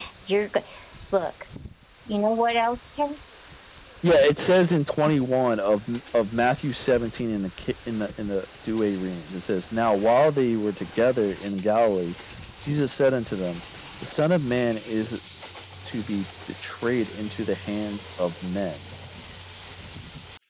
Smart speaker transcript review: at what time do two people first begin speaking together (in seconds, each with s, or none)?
none